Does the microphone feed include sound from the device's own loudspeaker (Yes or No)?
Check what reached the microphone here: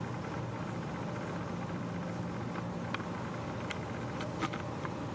No